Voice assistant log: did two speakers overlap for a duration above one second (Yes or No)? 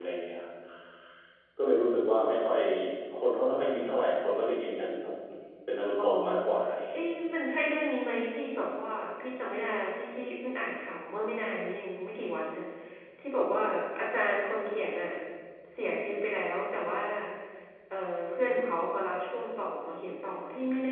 No